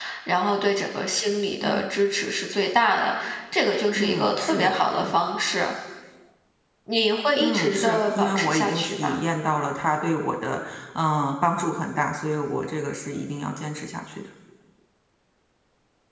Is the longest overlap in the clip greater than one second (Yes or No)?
Yes